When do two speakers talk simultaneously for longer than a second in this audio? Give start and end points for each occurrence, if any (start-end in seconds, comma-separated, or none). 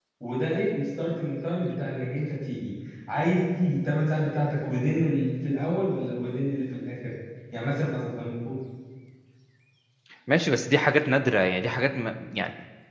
none